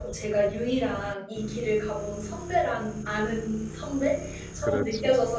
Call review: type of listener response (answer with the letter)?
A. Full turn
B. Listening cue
B